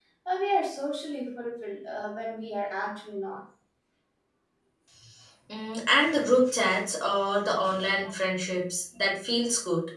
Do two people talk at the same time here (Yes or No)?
No